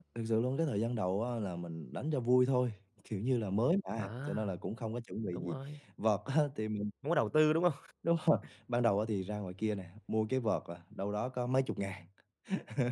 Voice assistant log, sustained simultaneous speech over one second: none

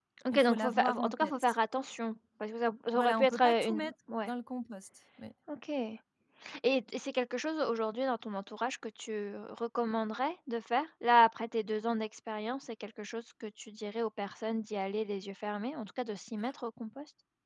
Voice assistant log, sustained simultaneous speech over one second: present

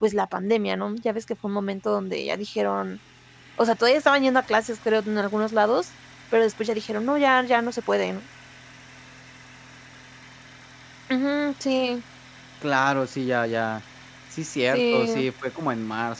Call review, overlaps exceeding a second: none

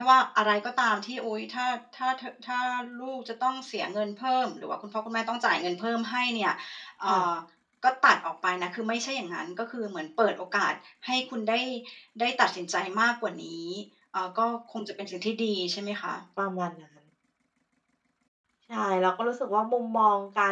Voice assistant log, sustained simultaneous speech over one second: none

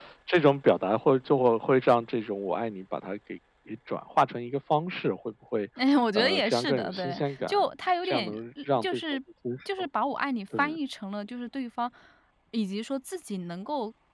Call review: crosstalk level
present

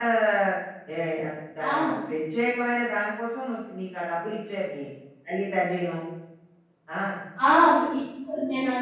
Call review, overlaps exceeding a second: none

